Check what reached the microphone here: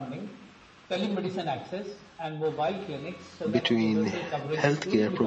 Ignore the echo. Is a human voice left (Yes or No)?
Yes